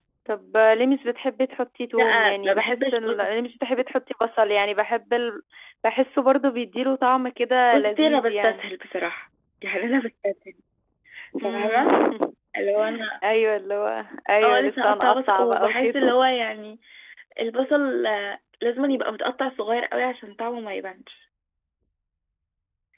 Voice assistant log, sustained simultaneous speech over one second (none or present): present